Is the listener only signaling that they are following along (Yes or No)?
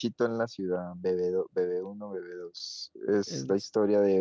Yes